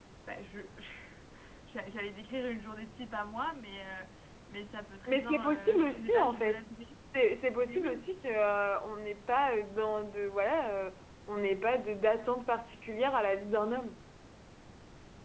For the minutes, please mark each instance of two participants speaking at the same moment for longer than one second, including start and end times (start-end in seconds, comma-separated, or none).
5.1-6.6